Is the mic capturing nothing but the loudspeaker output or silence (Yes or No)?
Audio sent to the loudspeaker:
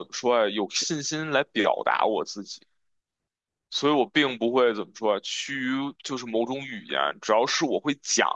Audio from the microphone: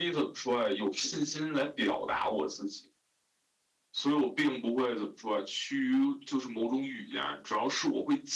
Yes